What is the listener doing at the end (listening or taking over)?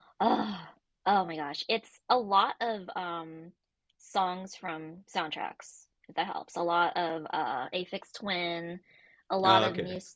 listening